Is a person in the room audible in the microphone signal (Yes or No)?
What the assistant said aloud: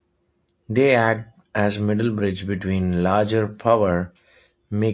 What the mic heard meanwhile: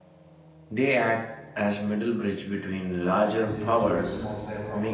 Yes